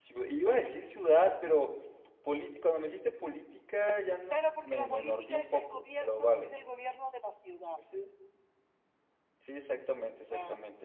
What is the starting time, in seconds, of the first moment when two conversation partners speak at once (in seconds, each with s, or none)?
4.3 s